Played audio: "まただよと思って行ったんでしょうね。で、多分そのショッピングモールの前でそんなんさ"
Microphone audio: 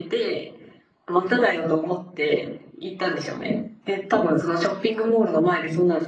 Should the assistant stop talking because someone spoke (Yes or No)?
No